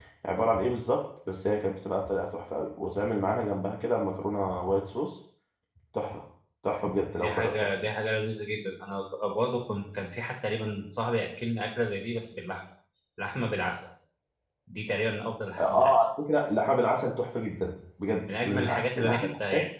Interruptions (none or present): present